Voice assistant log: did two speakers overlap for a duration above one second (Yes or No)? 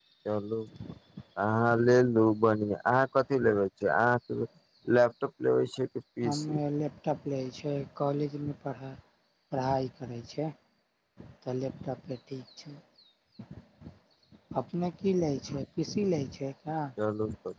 No